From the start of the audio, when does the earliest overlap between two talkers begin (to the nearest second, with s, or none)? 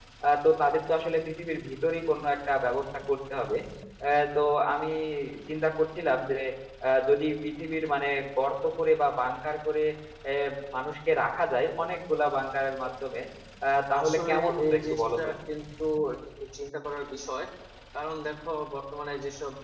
14 s